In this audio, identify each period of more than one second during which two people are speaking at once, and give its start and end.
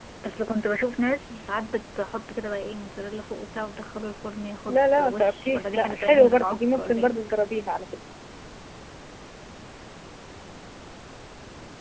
4.7-7.2

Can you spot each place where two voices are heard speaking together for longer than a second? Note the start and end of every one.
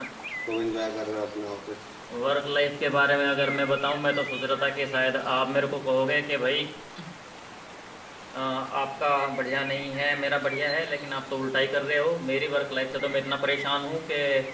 none

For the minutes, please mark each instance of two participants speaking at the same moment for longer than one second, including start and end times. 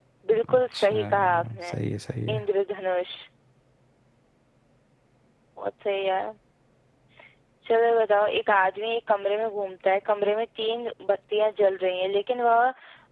0.5-1.8

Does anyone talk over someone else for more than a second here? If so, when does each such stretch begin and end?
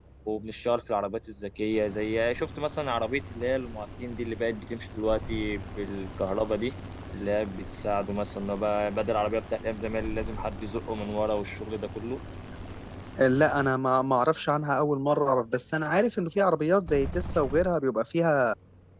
none

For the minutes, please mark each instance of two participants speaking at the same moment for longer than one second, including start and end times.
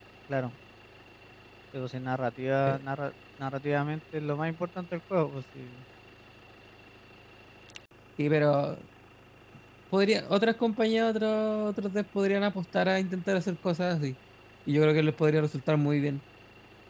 none

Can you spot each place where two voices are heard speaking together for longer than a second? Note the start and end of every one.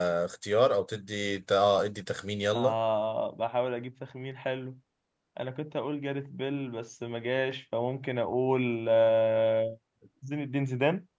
none

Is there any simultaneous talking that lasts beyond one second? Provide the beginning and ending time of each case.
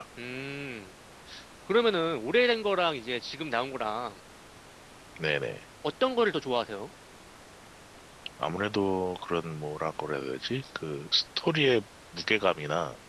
none

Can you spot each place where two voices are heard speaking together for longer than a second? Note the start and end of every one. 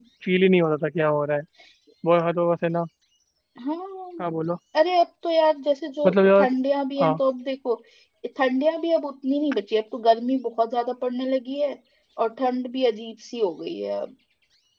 none

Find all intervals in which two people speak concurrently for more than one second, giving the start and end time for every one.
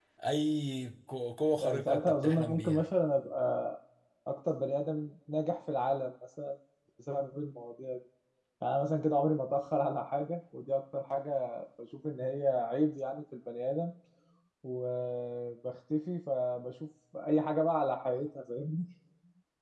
1.6-2.8

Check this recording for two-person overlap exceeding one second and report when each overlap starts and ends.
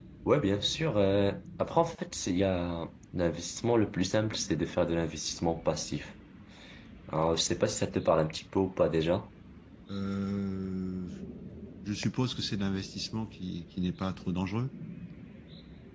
none

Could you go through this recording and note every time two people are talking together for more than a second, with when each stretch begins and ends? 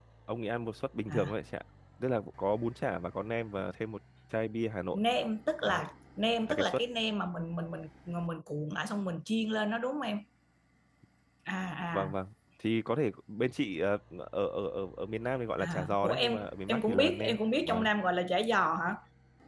15.6-17.9

